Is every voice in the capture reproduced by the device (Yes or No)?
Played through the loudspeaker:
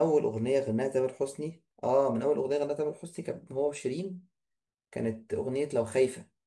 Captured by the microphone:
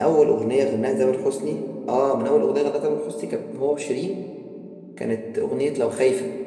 Yes